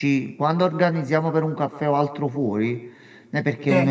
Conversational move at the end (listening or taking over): listening